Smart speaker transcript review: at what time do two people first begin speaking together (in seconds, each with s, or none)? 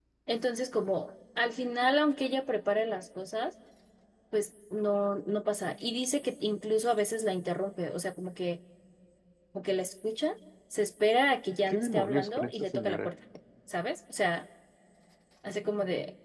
11.7 s